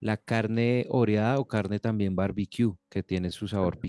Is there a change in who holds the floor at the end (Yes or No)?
No